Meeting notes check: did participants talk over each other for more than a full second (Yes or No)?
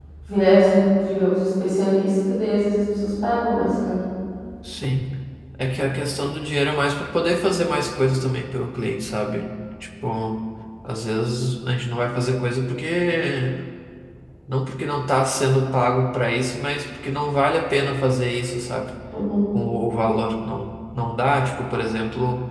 No